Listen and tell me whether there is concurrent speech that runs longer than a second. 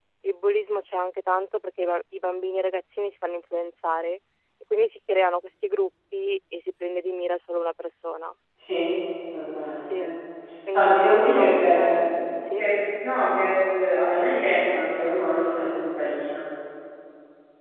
Yes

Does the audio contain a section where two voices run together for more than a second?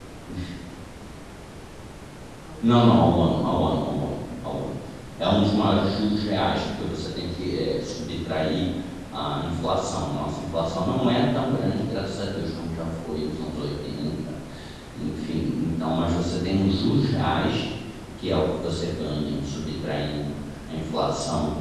No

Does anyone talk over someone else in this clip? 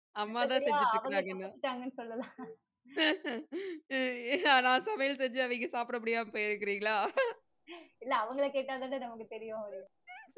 Yes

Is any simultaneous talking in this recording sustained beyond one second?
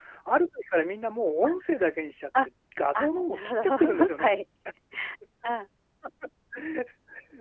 Yes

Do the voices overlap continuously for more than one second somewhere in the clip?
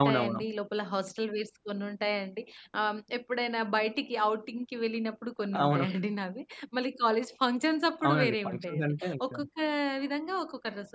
Yes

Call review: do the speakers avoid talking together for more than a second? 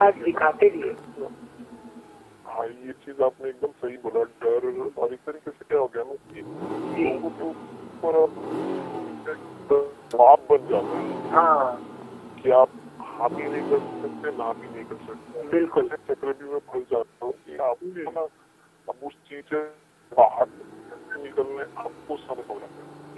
Yes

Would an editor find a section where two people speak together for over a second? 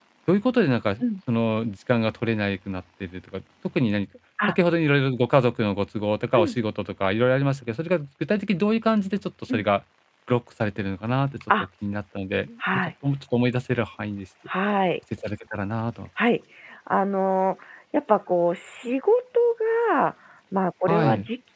No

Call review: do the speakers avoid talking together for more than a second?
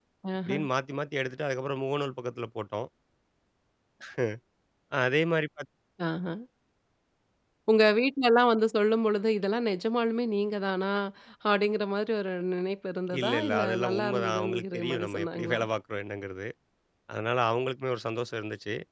No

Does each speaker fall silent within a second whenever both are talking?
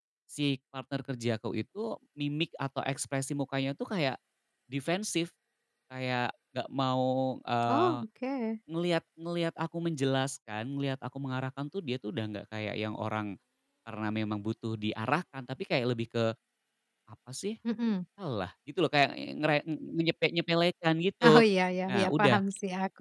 Yes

